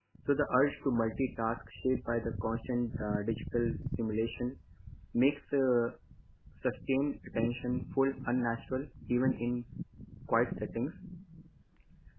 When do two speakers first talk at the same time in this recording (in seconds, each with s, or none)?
none